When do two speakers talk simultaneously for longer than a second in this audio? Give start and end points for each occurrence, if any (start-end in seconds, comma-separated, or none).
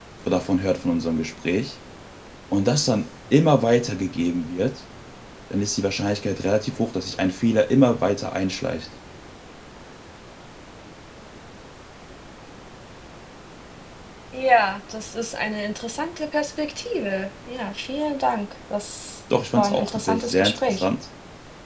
19.6-20.8